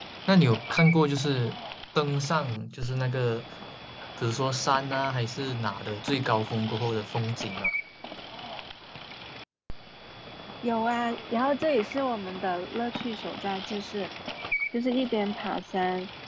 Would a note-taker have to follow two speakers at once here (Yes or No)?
No